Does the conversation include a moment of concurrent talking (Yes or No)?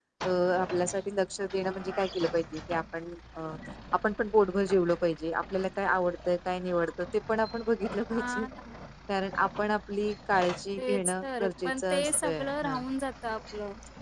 Yes